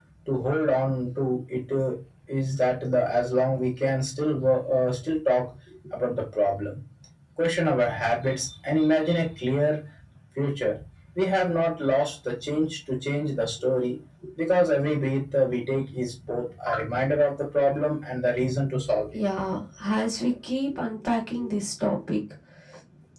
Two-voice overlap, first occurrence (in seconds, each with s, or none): none